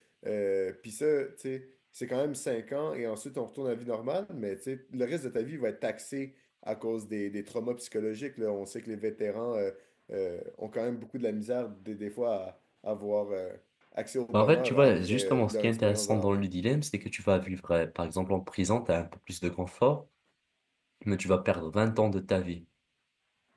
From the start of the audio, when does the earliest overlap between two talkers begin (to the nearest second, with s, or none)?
14 s